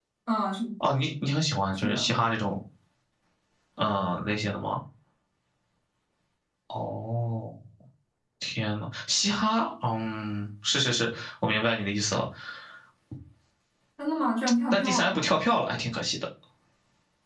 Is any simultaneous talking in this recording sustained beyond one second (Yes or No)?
No